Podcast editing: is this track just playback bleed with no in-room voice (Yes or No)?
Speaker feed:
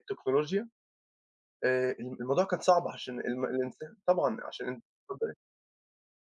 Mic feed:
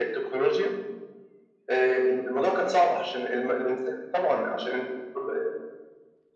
Yes